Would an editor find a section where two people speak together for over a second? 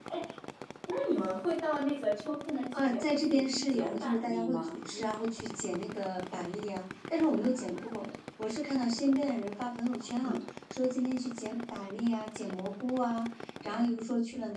Yes, from 2.7 s

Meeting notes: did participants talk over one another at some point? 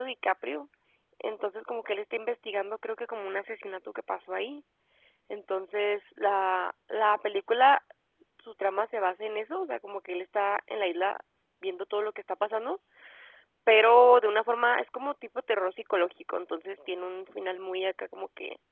No

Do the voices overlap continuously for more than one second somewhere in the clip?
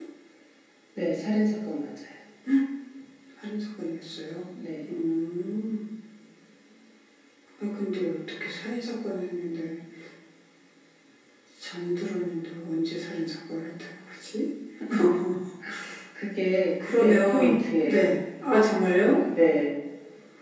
Yes, from 16.8 s

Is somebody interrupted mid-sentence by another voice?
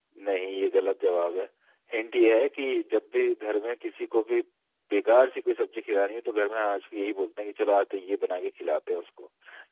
No

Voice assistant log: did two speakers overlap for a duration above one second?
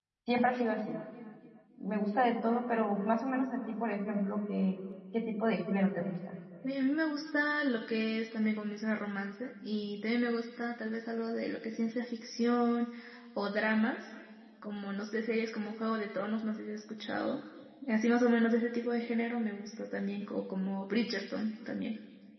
No

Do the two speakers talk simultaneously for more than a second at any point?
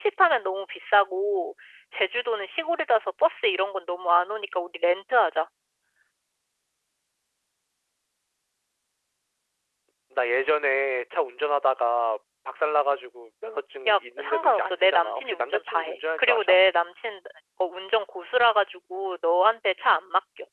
Yes, from 13.8 s

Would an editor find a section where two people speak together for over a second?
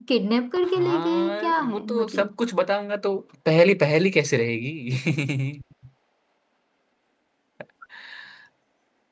Yes, from 0.6 s

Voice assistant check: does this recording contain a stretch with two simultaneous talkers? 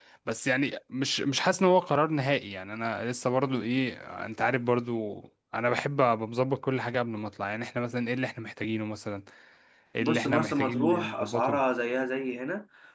Yes, from 10.0 s

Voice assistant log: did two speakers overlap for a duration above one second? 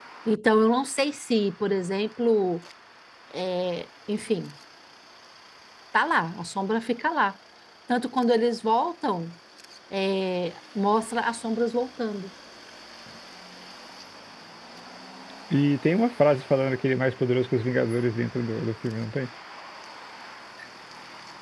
No

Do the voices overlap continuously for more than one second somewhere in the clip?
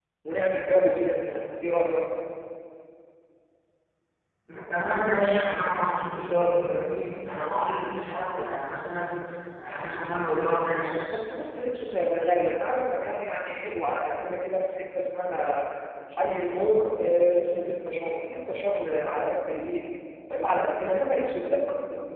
No

